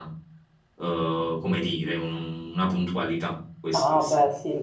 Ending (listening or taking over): taking over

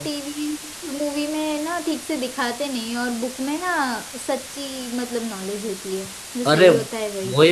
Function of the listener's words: taking over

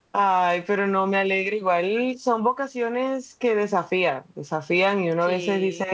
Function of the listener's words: listening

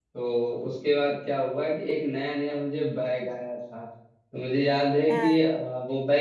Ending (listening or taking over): listening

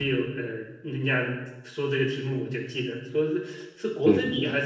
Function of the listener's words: listening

